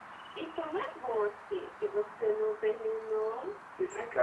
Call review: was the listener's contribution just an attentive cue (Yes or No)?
No